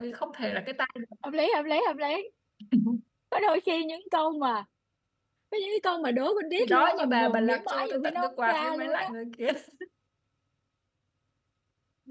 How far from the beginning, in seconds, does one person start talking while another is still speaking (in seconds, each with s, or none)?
6.6 s